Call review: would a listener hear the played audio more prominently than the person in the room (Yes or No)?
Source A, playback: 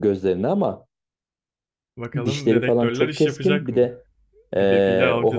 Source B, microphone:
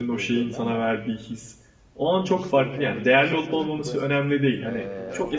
No